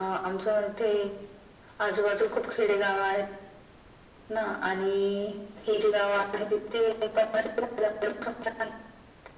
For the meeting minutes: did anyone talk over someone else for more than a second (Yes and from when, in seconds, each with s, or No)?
No